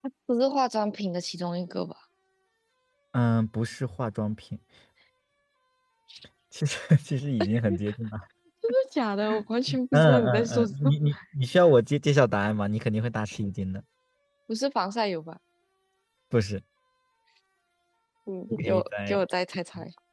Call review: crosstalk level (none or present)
present